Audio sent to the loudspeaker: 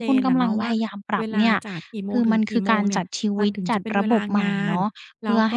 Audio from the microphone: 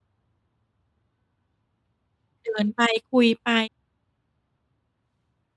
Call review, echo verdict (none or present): none